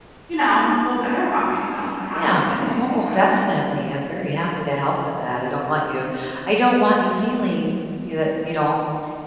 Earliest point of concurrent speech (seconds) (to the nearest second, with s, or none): 2 s